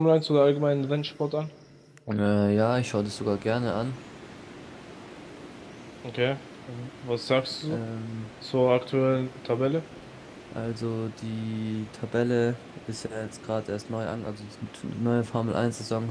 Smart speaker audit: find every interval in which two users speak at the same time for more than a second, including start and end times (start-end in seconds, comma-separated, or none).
none